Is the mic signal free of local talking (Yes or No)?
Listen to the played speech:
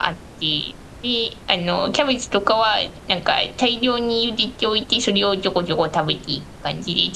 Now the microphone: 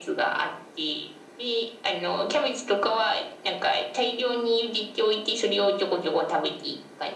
Yes